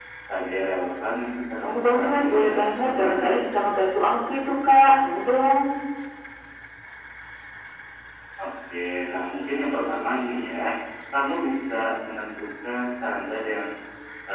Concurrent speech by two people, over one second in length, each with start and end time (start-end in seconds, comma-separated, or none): 1.6-3.4